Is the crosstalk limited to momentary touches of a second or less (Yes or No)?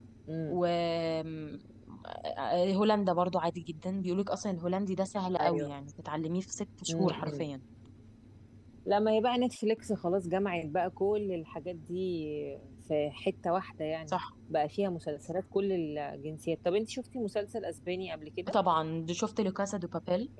Yes